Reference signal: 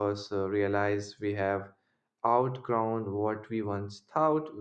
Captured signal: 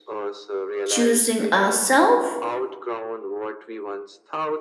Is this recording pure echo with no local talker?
No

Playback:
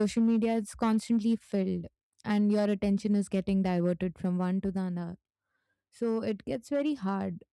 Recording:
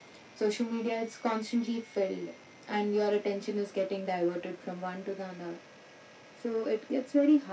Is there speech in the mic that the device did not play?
No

